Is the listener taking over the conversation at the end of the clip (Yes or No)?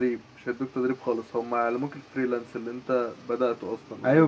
Yes